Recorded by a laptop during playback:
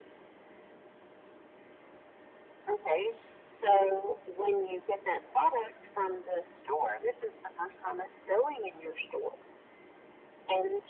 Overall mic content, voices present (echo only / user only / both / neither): echo only